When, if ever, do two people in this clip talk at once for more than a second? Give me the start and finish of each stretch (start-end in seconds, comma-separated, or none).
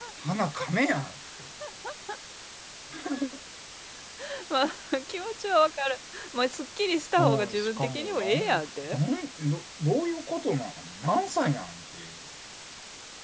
7.2-9.0